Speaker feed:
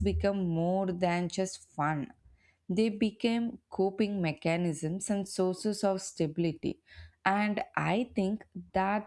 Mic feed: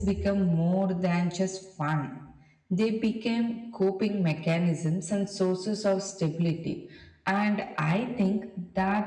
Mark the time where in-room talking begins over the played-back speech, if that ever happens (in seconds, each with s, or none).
none